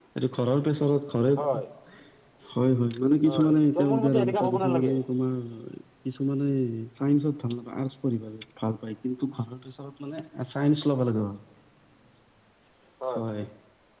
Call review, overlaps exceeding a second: present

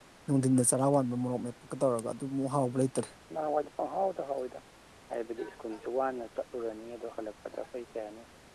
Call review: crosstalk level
none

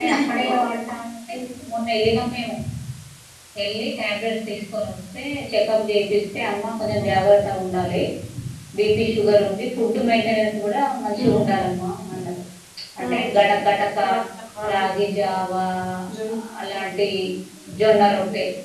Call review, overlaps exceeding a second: none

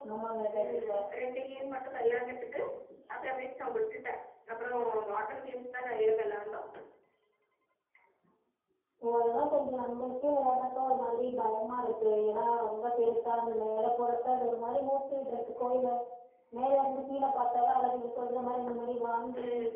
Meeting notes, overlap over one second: none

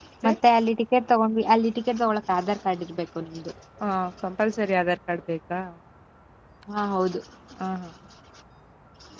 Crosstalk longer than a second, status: none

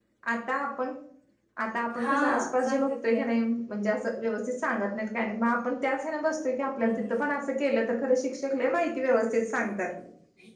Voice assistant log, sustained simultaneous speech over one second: present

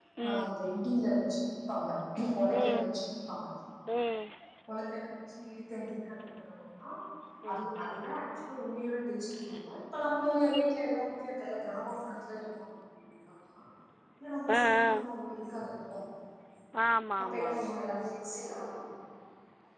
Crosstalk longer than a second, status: none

